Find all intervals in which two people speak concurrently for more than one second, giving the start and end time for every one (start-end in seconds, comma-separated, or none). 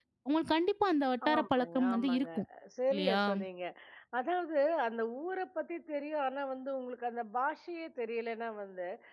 1.2-2.4